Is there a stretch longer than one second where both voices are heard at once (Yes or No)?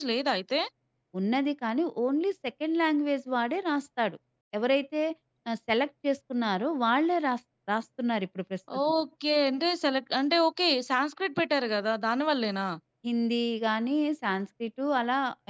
No